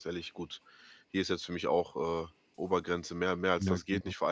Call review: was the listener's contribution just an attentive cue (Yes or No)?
Yes